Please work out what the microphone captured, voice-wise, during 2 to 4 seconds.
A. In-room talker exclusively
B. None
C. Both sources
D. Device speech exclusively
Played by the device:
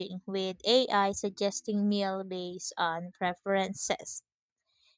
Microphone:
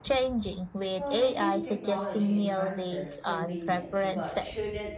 C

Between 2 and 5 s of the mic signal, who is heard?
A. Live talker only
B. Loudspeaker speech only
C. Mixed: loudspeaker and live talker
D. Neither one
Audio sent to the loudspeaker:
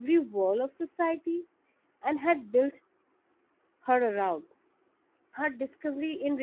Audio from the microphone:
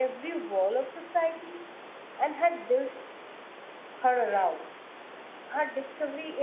B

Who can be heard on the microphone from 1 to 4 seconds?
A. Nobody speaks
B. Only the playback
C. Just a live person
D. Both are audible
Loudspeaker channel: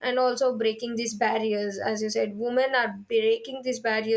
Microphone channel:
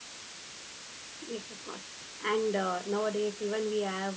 C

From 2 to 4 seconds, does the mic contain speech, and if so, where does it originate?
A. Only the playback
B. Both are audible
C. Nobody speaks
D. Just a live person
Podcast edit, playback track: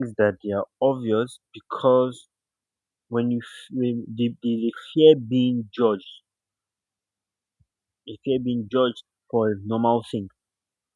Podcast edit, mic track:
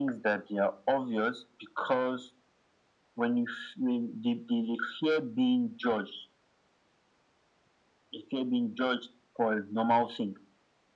A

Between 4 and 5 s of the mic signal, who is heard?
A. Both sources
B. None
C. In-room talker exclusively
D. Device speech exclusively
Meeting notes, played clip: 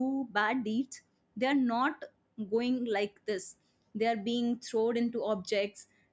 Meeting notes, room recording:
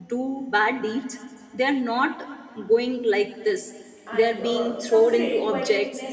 A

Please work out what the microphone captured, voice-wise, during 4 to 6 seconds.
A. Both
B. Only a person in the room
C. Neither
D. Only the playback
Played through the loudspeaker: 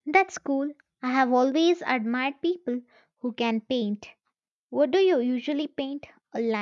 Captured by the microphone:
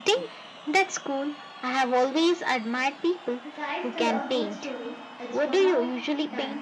A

